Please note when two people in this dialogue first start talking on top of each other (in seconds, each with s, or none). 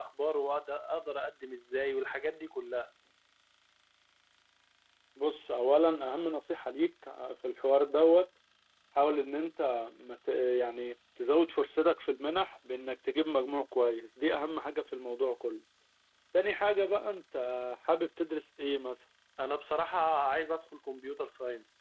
none